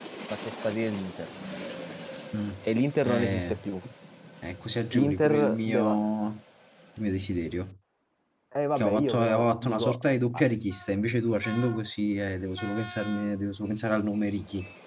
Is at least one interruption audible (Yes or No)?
Yes